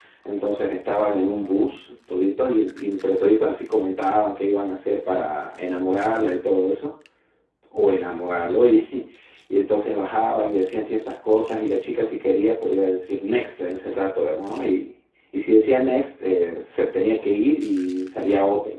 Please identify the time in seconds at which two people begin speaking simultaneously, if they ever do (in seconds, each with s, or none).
none